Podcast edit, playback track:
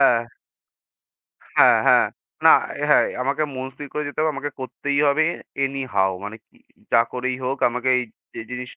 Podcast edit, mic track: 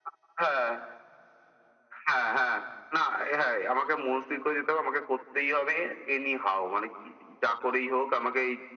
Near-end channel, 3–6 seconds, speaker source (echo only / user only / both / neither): echo only